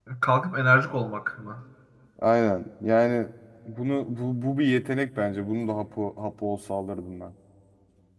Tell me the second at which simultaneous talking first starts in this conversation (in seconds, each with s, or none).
none